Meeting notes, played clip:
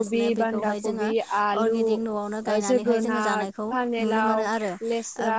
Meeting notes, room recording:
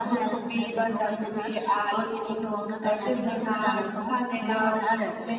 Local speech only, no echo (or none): none